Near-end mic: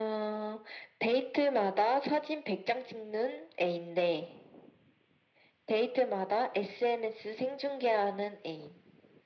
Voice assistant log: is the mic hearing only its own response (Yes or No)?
Yes